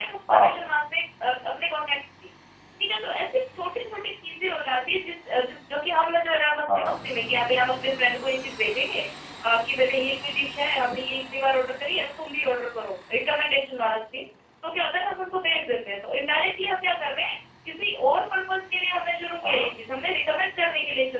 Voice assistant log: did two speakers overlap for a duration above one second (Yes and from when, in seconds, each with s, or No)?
No